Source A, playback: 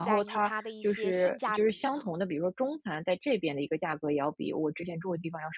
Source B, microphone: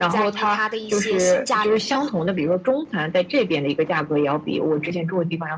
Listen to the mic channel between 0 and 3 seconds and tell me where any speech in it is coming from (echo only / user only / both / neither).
echo only